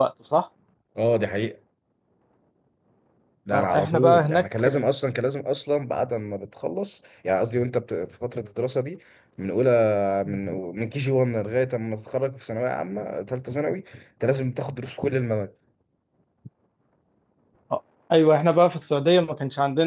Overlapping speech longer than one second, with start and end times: 3.5-4.8

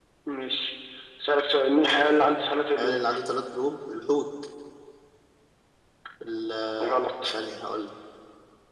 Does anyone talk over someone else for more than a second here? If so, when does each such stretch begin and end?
none

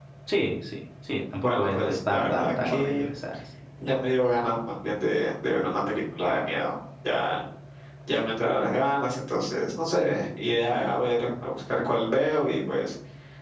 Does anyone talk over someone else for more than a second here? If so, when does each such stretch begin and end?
1.4-3.0

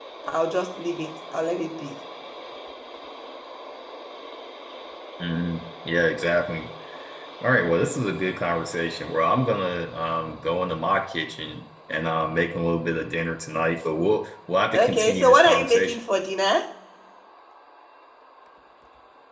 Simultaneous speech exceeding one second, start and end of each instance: 14.8-16.0

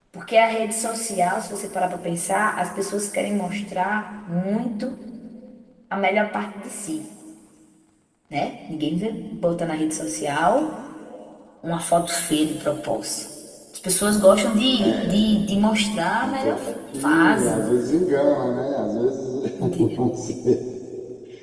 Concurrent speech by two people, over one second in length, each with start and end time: 16.2-17.7

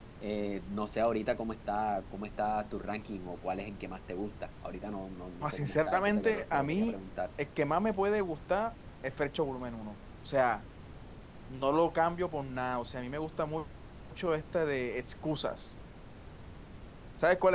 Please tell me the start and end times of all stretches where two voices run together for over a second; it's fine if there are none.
5.4-6.9

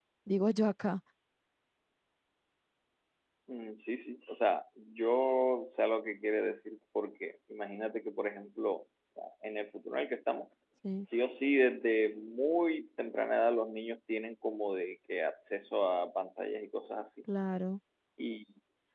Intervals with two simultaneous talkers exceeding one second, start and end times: none

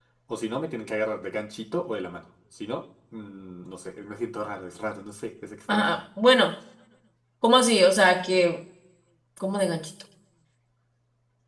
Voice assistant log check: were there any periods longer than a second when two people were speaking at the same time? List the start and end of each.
none

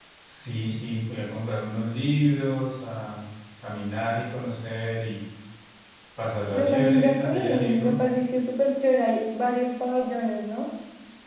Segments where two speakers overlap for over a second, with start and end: 6.5-8.0

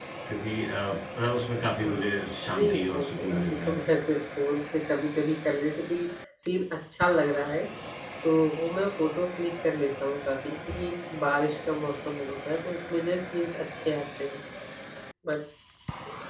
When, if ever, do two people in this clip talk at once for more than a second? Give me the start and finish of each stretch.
1.8-3.8

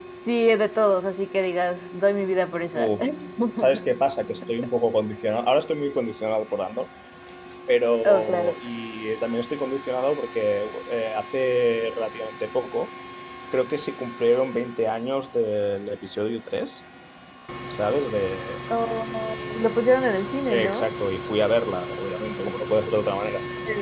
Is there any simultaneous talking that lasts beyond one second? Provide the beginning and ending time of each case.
none

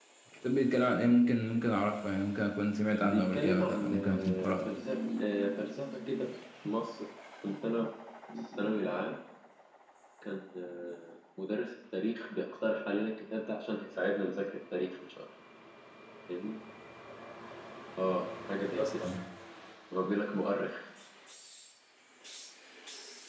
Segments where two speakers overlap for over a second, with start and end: 2.9-4.6

